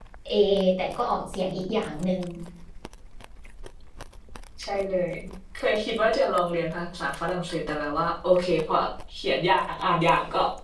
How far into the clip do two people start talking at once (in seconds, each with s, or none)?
none